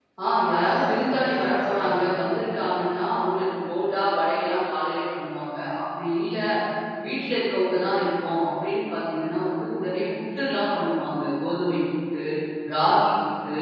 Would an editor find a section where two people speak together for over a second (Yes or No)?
Yes